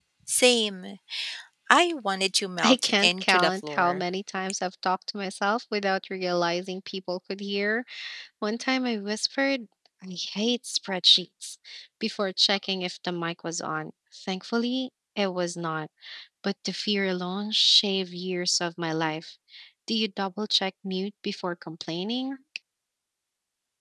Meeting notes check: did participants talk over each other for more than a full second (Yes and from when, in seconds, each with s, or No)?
Yes, from 2.6 s